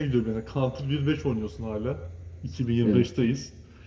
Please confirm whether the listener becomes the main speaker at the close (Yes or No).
No